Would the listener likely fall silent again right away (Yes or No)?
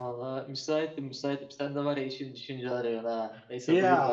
No